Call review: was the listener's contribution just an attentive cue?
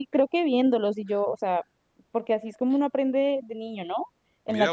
No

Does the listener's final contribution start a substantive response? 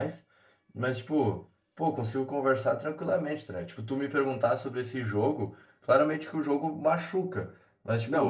No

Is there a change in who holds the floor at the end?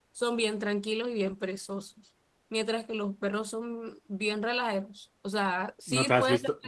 Yes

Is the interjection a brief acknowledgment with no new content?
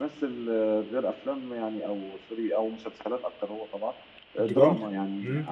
Yes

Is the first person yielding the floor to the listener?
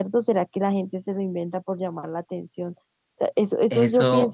Yes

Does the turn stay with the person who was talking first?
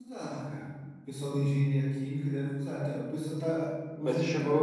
No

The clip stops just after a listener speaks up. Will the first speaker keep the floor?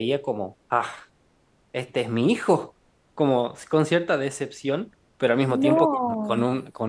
Yes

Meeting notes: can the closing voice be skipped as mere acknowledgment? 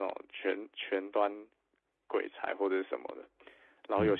Yes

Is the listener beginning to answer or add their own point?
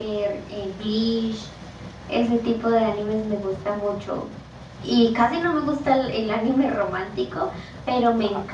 No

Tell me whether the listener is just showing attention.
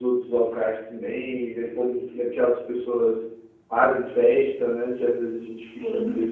Yes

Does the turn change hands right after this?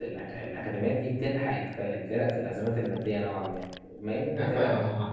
Yes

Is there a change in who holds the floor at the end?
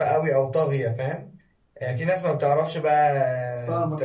No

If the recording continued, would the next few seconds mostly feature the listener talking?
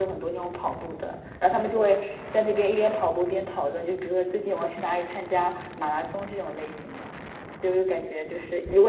No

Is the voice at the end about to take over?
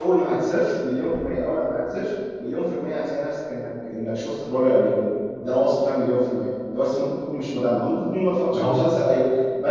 No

